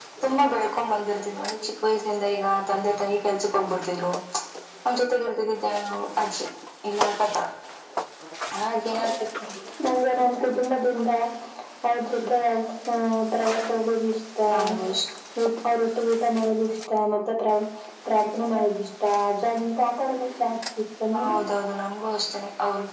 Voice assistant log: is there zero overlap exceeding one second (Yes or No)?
Yes